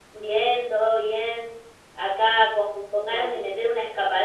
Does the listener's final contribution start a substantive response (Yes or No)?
No